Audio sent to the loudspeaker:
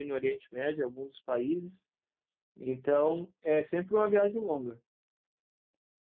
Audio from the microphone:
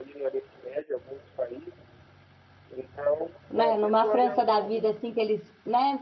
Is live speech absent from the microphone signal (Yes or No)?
No